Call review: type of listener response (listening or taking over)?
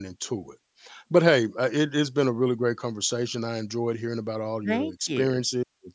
listening